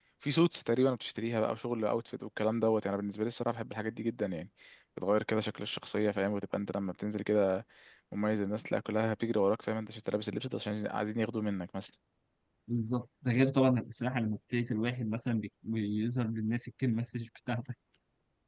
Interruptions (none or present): none